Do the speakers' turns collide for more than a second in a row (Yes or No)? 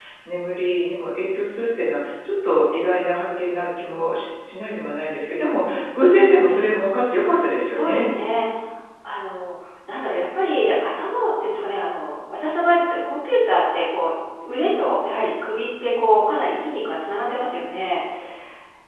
No